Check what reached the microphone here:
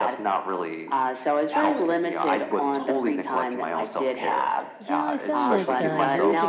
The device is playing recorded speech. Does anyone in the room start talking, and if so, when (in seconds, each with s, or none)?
4.8 s